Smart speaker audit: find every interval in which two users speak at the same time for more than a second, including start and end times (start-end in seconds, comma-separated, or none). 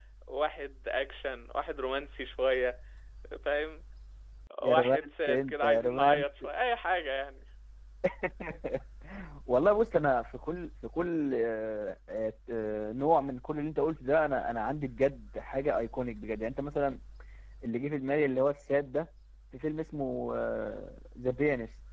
4.6-6.2